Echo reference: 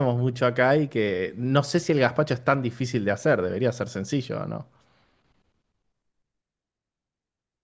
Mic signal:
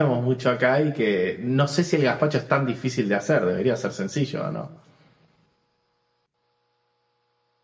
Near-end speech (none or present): none